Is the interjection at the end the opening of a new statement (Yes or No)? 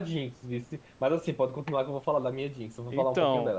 Yes